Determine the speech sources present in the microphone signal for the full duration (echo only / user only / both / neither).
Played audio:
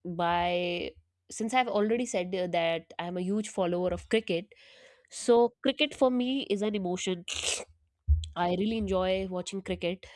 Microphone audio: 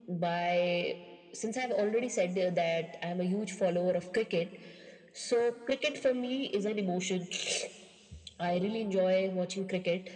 echo only